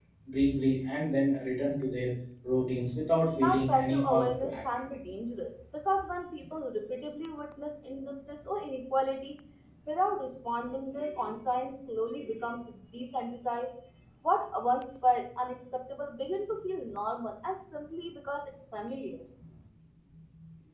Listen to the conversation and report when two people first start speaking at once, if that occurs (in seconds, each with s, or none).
3.3 s